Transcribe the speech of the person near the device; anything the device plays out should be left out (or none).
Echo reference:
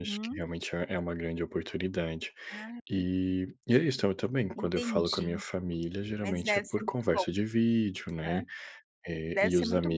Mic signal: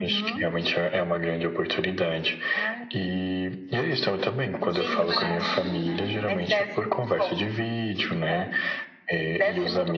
Diz que é baratinho né?